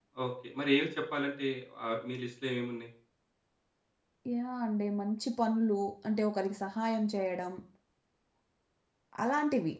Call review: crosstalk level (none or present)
none